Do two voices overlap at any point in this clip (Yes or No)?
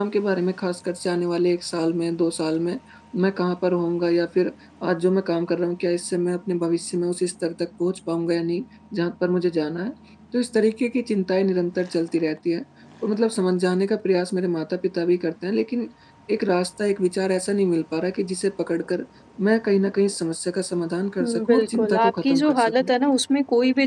Yes